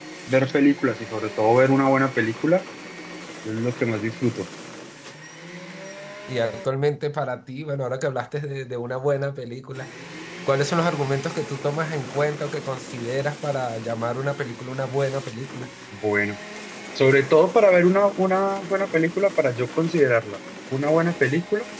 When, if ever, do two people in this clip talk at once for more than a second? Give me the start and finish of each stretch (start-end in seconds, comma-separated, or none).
none